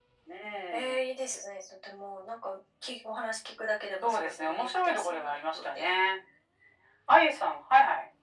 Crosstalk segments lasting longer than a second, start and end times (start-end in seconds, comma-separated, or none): 4.0-5.9